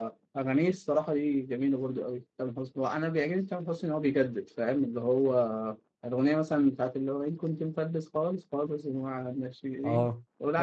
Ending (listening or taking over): taking over